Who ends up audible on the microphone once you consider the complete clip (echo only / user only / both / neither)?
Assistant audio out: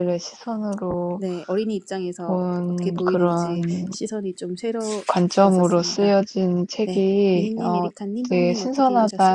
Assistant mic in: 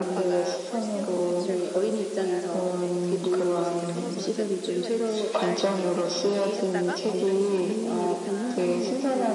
both